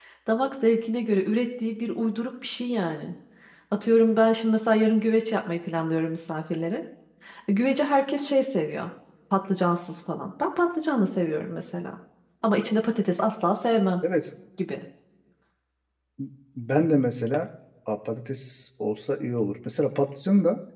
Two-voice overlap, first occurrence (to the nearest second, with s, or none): none